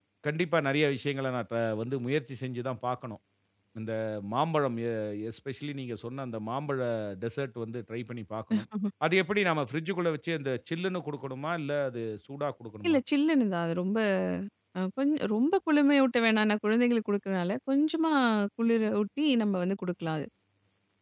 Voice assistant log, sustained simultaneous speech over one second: none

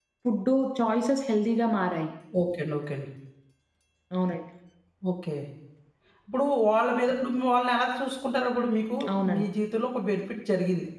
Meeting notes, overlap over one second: none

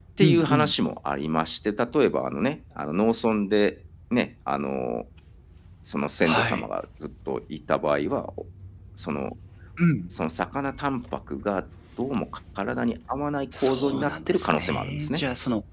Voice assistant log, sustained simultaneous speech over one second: present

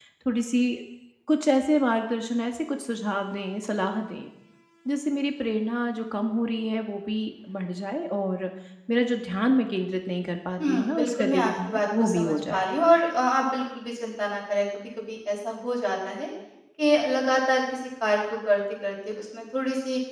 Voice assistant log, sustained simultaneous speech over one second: present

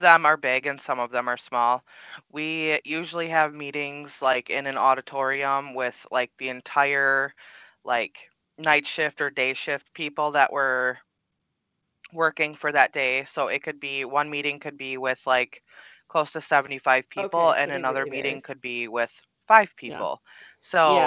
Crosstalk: present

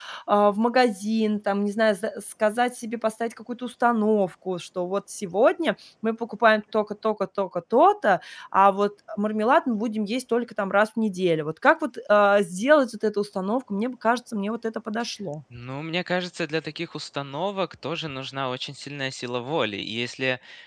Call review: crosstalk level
none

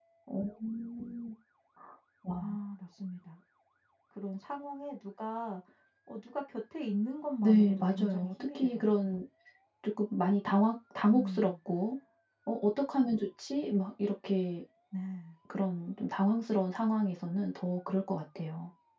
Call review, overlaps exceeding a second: present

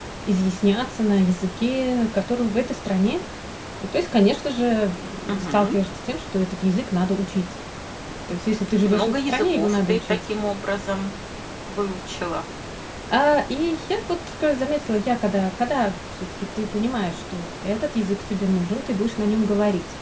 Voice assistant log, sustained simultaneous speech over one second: present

